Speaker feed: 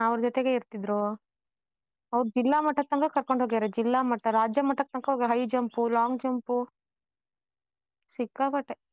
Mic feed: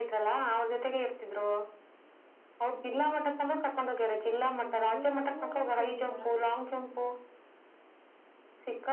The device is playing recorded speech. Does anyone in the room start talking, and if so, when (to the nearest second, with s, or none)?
4 s